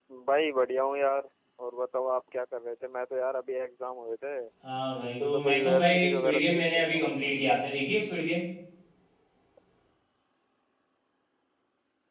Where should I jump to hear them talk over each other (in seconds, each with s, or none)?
5.0 s